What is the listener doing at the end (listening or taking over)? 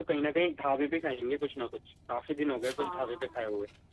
taking over